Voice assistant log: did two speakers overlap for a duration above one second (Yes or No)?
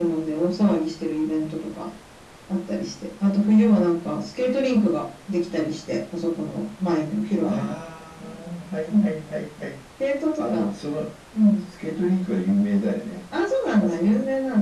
No